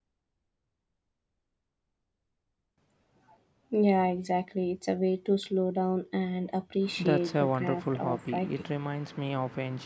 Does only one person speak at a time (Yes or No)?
No